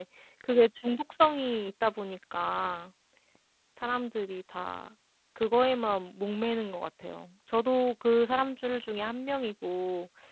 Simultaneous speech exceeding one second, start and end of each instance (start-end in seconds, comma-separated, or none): none